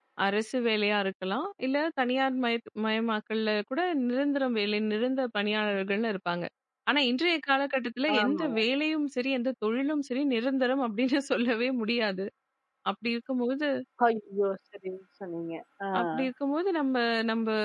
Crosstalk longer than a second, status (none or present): none